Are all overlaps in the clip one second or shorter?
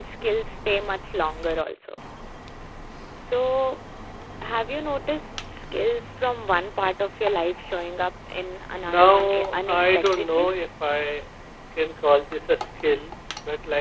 No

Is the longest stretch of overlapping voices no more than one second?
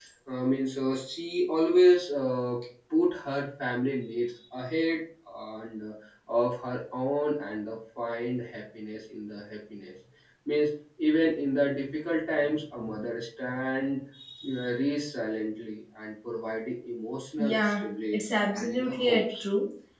No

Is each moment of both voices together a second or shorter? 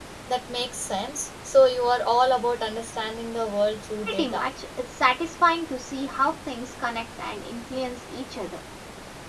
Yes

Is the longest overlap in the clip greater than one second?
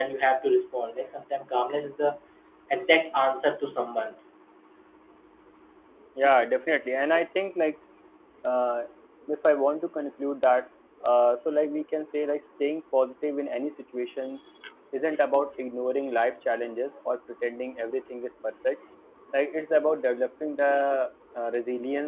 No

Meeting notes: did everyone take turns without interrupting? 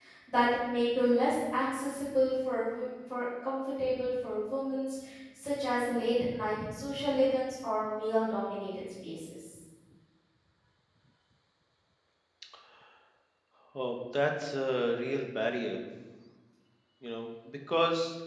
Yes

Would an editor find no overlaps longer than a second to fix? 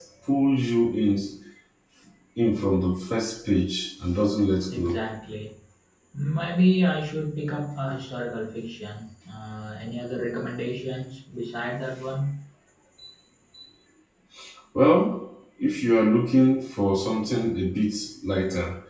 Yes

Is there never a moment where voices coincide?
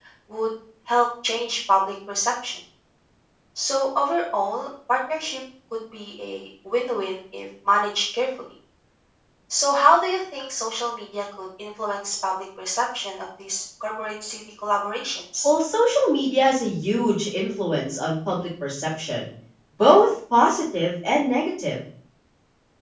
Yes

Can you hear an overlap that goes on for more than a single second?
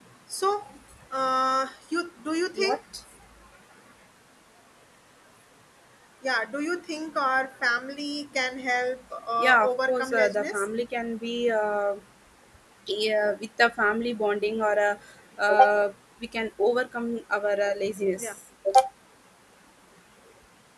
Yes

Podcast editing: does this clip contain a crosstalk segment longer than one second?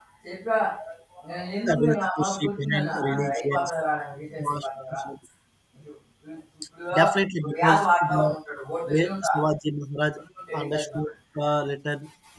Yes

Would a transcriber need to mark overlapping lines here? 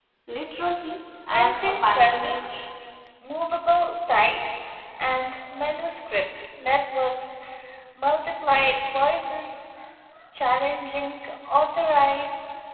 Yes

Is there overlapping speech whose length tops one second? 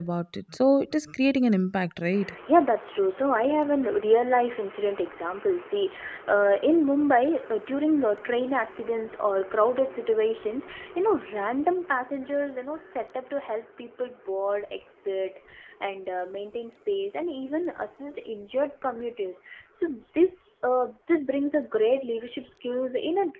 No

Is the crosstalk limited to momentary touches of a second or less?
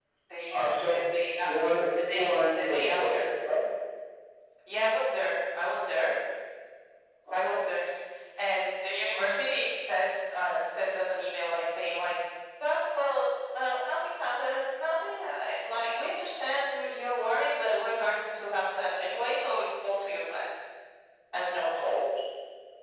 No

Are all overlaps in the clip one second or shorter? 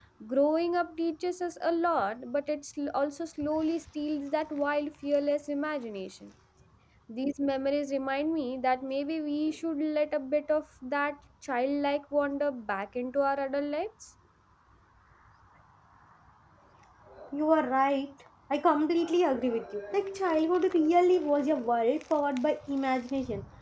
Yes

